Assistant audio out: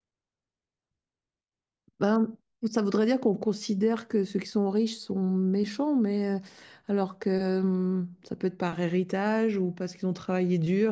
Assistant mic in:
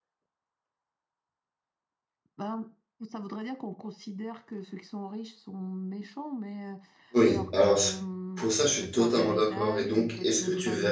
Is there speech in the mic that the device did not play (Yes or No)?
Yes